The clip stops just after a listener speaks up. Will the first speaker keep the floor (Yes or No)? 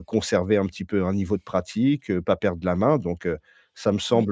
Yes